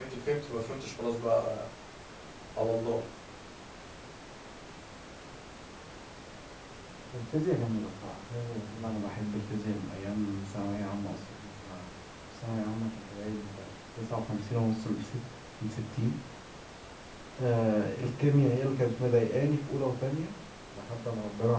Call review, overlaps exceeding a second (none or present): none